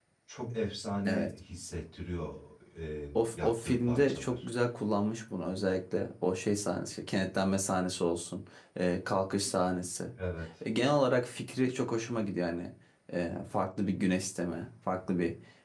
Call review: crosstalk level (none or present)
present